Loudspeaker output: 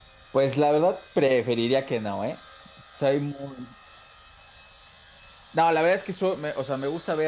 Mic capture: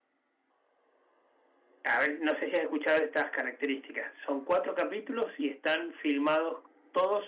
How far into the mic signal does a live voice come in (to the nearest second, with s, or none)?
2 s